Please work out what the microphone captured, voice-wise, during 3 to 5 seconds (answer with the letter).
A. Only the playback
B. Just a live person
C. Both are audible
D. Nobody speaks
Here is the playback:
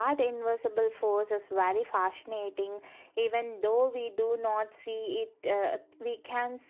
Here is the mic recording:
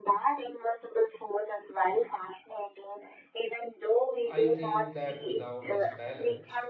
C